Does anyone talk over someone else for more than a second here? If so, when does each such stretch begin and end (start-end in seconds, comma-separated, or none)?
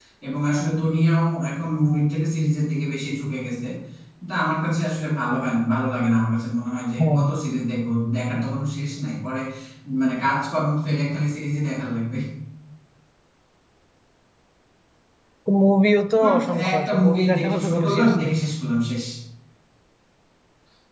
16.2-18.3